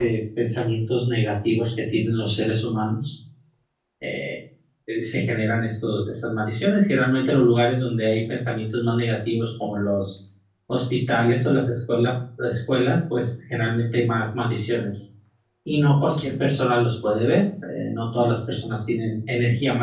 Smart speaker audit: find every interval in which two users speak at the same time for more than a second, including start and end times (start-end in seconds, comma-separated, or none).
none